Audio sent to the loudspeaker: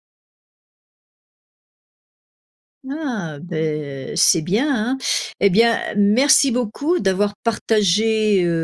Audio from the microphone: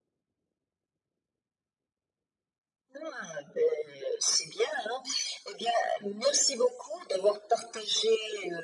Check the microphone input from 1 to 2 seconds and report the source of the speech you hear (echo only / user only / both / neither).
neither